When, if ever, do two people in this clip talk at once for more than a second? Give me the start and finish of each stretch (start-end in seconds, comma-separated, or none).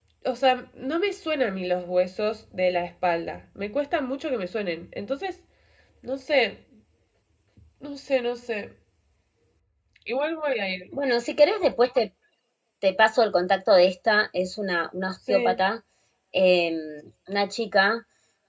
none